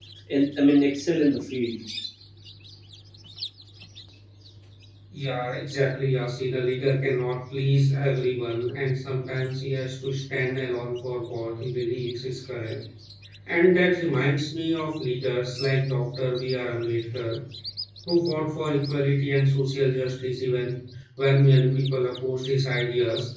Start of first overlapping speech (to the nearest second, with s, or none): none